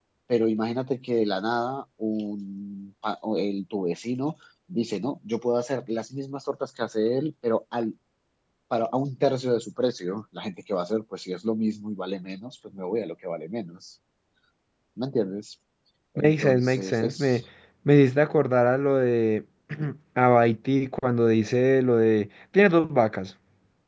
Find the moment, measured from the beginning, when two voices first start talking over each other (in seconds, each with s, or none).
16.2 s